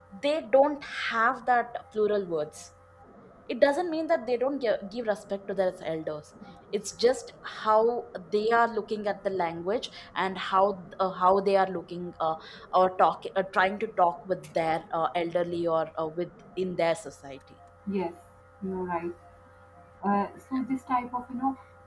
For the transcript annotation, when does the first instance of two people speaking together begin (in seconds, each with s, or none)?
none